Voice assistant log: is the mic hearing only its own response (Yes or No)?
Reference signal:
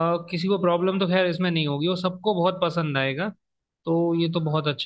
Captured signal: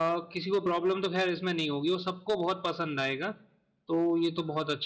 Yes